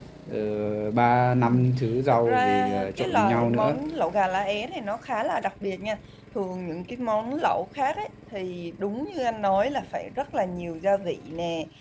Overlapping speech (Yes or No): Yes